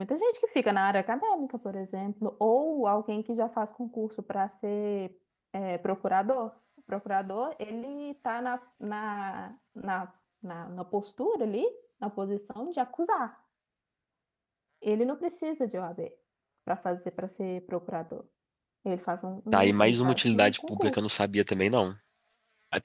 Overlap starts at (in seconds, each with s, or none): 19.5 s